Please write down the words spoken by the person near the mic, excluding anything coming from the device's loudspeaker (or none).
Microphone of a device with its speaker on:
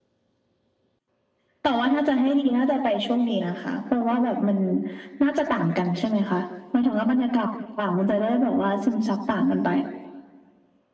none